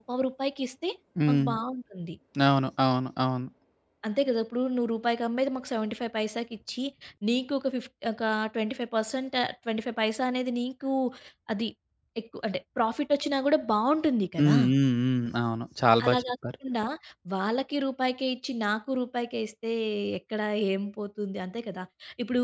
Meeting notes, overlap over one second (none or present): none